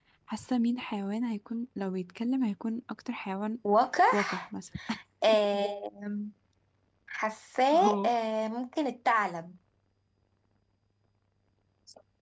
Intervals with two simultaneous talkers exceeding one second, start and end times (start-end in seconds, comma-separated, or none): none